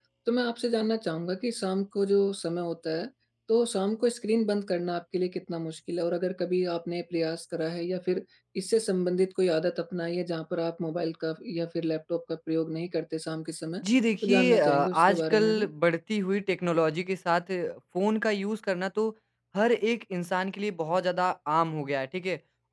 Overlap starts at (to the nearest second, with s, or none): 14 s